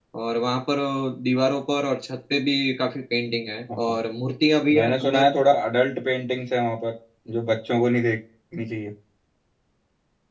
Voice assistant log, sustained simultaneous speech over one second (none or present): none